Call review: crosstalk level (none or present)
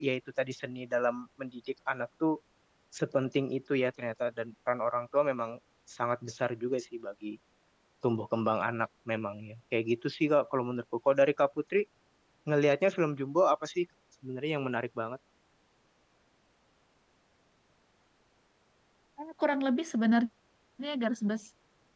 none